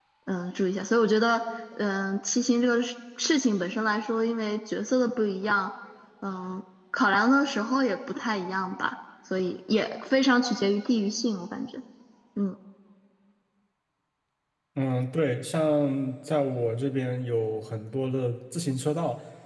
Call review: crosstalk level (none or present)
none